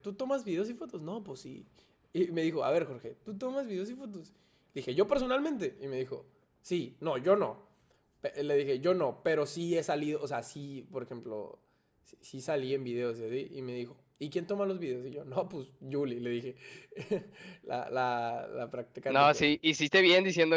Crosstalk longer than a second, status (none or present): none